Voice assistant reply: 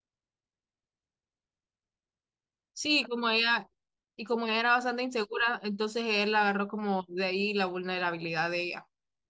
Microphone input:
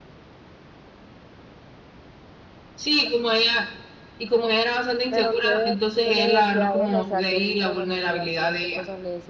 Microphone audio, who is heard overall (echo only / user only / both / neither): both